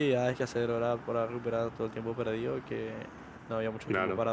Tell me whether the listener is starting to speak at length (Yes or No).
No